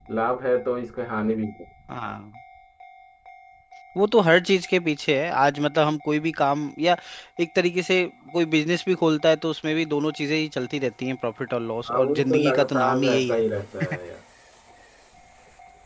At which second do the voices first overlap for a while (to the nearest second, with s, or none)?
12 s